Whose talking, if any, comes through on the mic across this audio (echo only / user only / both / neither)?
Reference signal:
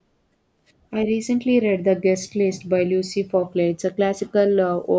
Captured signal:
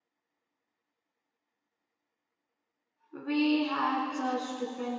user only